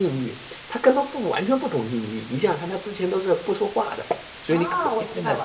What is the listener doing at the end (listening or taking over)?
taking over